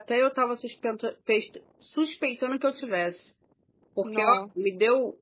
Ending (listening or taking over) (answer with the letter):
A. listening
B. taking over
A